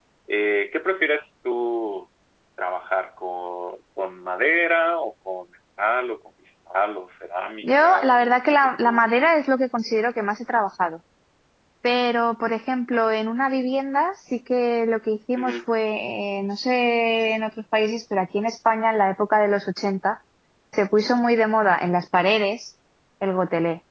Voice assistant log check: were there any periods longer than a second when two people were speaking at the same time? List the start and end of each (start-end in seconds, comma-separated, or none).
7.6-9.3